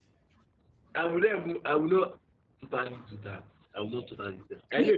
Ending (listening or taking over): listening